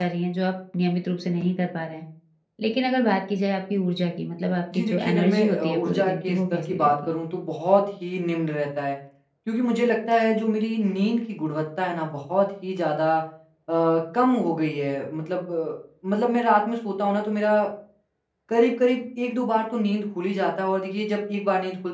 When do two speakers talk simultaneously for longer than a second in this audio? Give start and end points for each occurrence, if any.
4.8-7.2

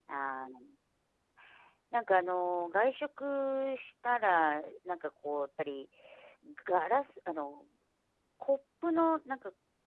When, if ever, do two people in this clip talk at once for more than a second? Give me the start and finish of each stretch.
none

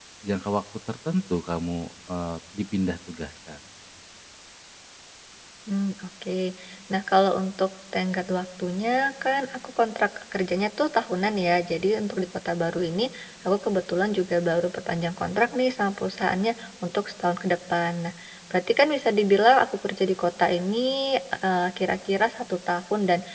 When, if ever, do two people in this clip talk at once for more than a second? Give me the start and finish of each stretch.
none

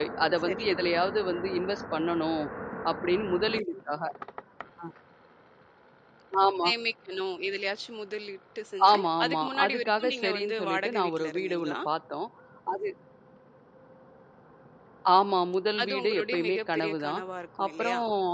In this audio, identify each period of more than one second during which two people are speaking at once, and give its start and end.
8.9-11.8, 15.8-17.2

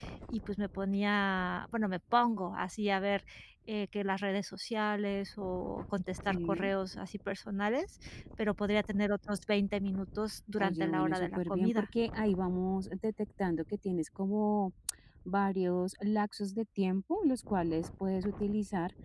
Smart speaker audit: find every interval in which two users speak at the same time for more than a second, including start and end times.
10.6-11.9

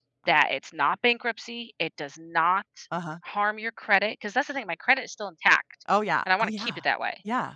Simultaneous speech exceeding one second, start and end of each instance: none

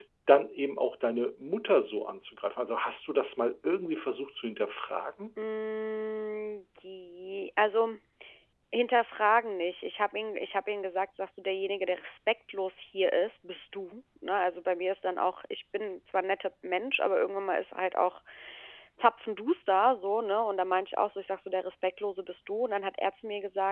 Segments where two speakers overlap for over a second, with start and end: none

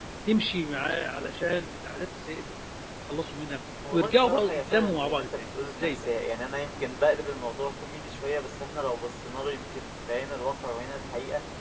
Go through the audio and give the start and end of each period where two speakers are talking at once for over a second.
3.9-6.1

